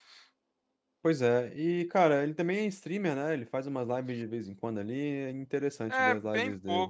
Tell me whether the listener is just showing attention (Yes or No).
No